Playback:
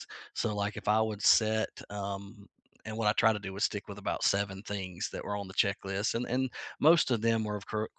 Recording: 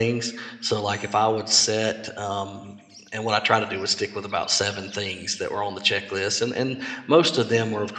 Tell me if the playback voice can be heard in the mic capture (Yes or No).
Yes